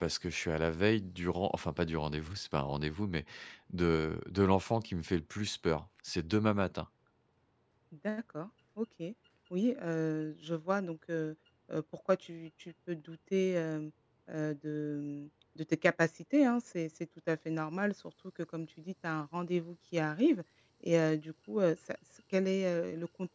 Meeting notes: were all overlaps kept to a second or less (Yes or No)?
Yes